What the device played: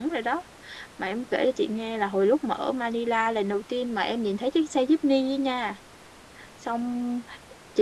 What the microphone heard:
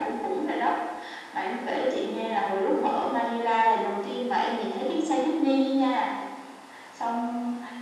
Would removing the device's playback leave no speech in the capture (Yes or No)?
Yes